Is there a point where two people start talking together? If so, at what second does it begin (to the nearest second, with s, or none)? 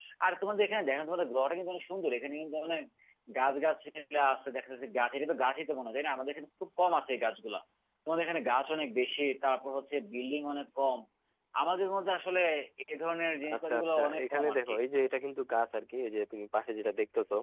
14 s